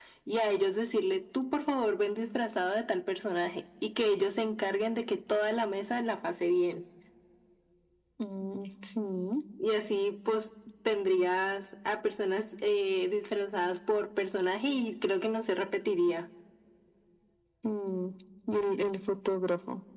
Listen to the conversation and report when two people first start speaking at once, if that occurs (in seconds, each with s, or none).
none